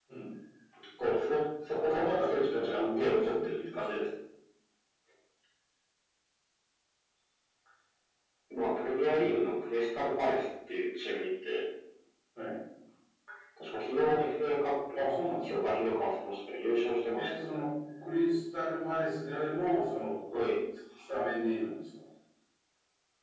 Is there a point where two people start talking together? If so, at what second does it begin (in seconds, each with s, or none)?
1.7 s